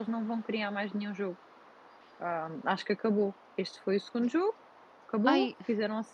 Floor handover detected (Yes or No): No